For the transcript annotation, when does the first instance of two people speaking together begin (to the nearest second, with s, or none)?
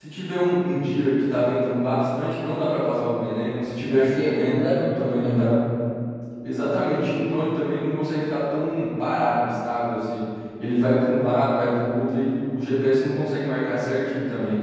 4 s